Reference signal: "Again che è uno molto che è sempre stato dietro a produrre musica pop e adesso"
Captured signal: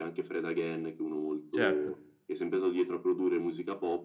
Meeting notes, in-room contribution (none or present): present